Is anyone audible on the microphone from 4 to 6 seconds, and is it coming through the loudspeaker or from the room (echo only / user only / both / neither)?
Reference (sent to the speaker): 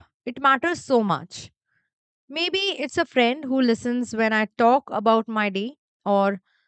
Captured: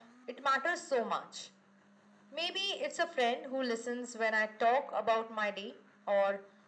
echo only